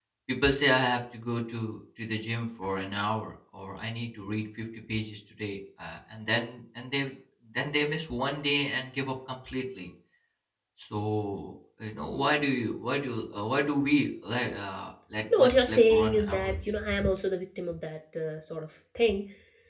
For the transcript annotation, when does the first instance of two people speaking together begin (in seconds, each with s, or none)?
15.3 s